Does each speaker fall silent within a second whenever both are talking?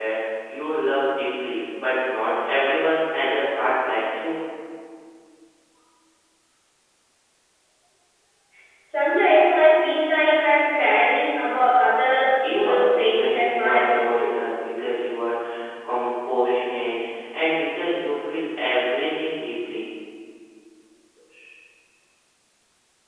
No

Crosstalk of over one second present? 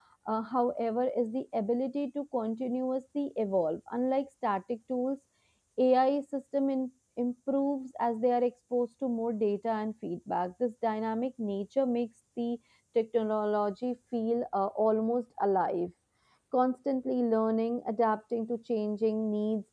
No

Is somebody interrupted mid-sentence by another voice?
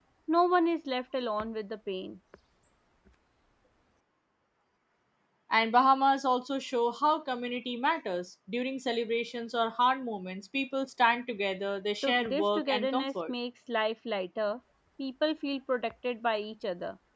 Yes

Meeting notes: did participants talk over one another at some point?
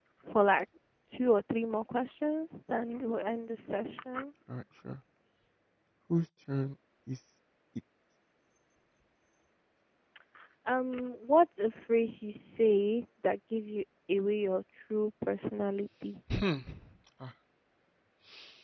No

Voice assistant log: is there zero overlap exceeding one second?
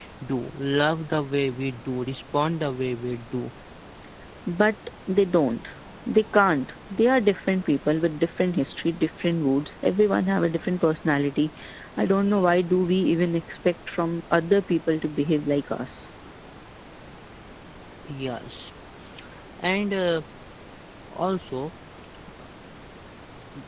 Yes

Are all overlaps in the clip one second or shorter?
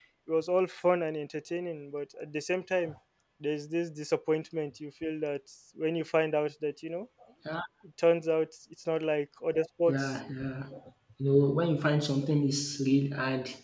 Yes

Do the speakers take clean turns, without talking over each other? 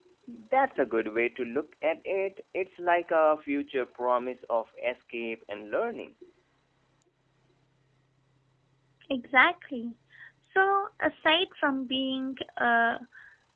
Yes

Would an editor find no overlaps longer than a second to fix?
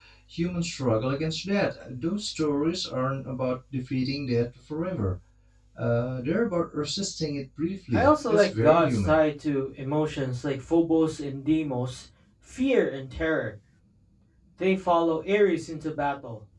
No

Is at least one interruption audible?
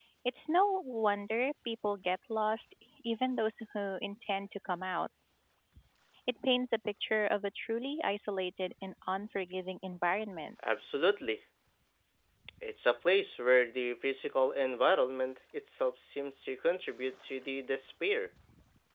No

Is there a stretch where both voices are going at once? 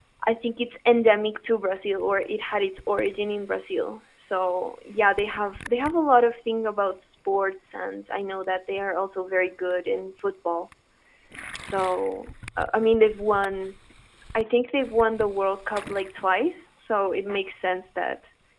No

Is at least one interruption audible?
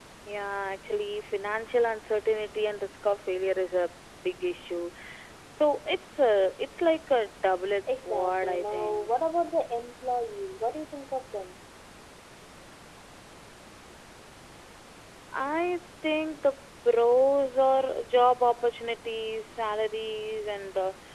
Yes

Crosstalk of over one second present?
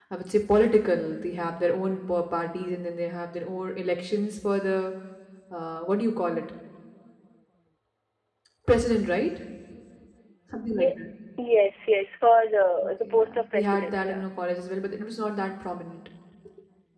Yes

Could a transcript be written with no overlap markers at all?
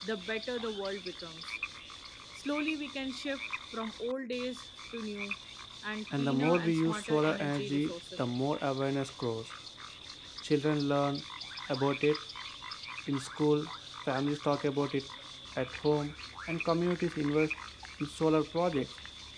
No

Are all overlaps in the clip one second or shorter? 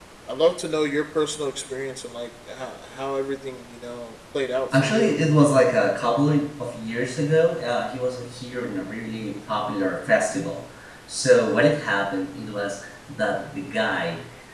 Yes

